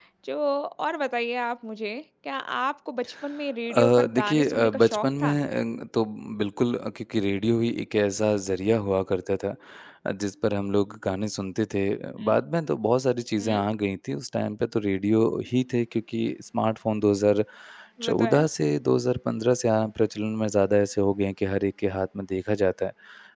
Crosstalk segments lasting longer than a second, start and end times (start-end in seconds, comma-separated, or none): 3.7-5.4